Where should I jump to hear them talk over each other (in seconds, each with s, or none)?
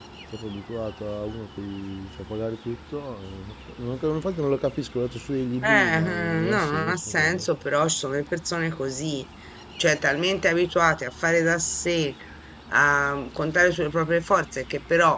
5.6 s